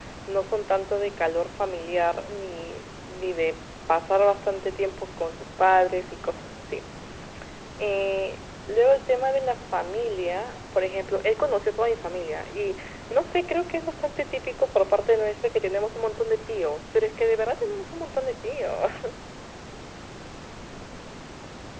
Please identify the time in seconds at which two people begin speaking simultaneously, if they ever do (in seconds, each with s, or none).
none